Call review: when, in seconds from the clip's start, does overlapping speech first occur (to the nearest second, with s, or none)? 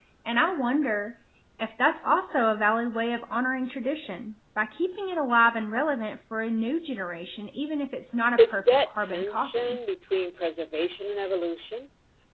8 s